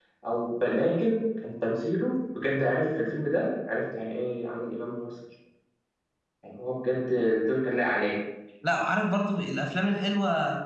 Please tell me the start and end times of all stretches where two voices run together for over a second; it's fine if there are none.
none

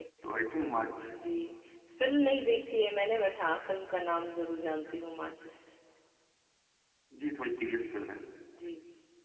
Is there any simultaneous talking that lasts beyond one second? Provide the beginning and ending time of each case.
none

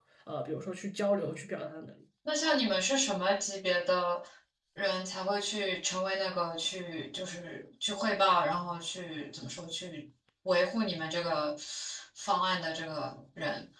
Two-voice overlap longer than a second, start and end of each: none

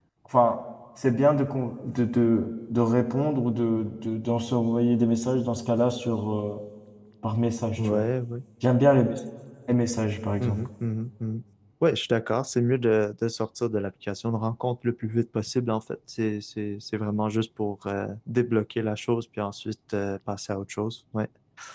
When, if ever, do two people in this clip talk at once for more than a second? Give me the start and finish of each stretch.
none

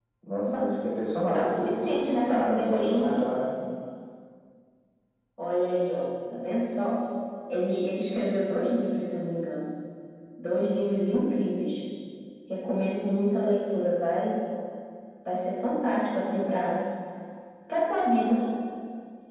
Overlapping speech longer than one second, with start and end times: 1.2-3.1

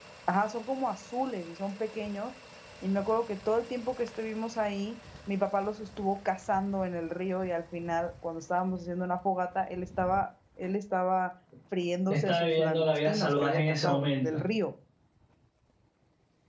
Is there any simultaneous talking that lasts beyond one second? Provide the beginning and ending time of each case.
12.1-14.4

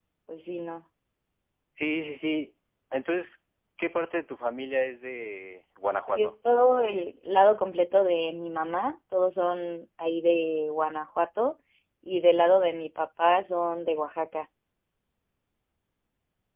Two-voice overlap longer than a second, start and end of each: none

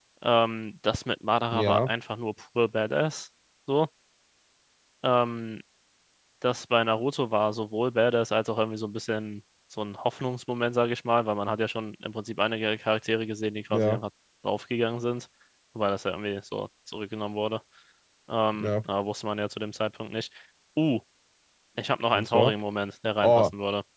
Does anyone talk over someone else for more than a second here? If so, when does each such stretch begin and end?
none

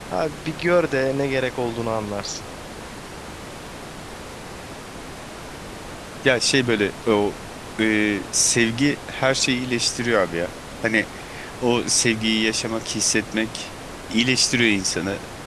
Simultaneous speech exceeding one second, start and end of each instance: none

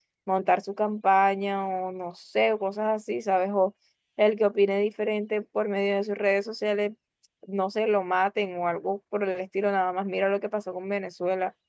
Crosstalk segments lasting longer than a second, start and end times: none

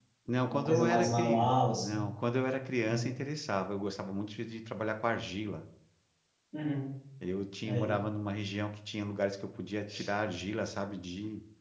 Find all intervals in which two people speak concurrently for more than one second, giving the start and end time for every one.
0.5-2.0

